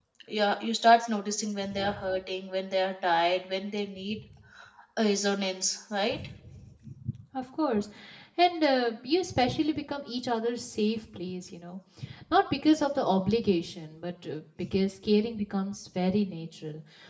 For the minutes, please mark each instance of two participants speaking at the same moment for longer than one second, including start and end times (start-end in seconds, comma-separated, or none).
none